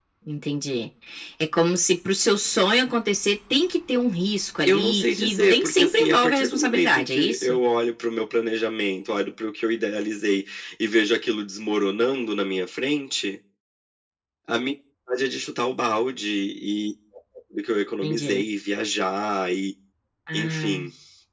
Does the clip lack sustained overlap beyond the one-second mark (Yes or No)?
No